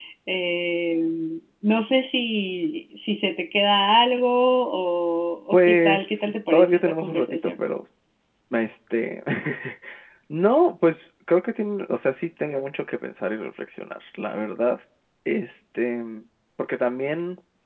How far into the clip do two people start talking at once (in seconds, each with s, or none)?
5.5 s